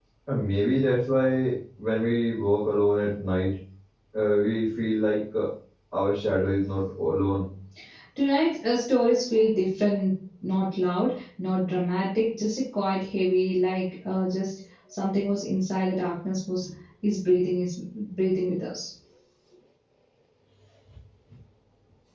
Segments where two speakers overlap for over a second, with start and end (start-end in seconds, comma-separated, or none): none